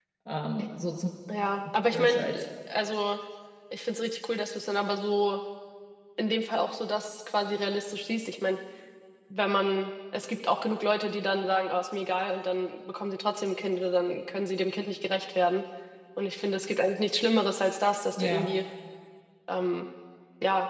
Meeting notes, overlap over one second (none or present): none